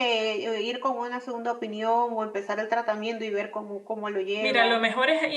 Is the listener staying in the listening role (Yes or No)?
No